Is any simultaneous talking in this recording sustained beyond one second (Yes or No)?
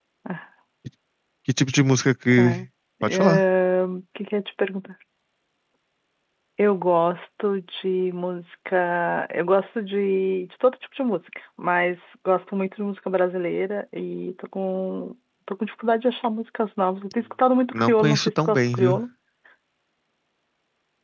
Yes